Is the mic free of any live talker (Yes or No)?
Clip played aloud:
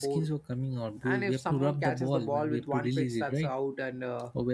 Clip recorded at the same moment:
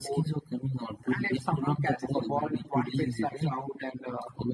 Yes